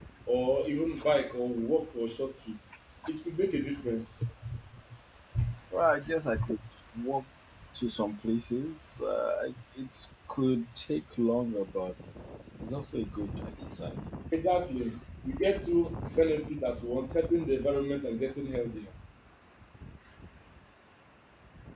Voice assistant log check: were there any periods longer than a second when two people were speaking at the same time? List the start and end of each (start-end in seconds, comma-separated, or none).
none